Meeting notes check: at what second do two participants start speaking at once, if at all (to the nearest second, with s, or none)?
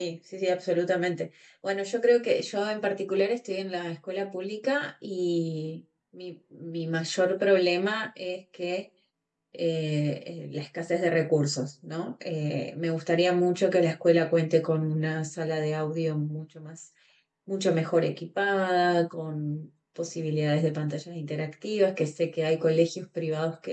none